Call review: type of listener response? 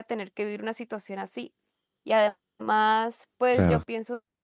listening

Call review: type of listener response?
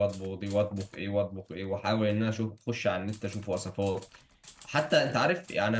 listening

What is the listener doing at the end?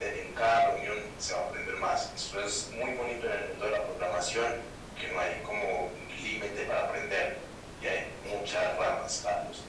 listening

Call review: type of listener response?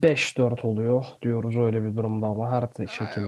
taking over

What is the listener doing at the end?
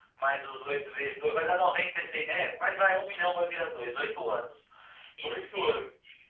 listening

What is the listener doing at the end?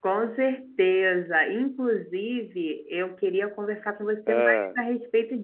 listening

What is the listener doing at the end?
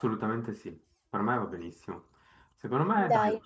listening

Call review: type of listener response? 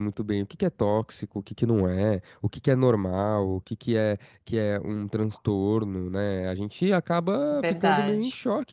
listening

